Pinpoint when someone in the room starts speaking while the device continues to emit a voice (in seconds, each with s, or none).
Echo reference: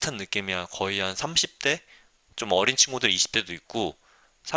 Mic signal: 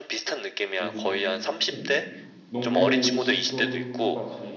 0.8 s